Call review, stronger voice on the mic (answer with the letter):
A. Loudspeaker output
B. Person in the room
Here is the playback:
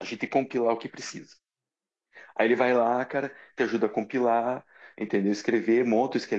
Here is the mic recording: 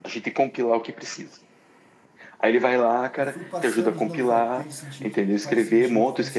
A